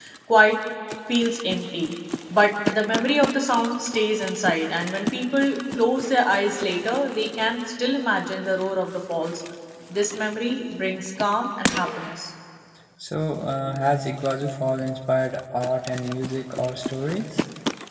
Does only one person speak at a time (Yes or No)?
Yes